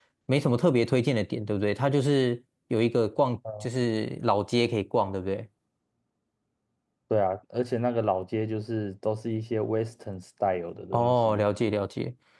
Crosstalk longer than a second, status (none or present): none